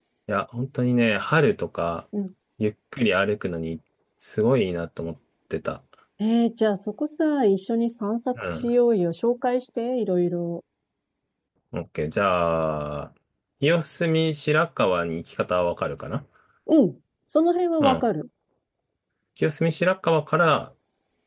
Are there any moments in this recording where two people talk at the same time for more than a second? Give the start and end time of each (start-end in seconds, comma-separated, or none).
none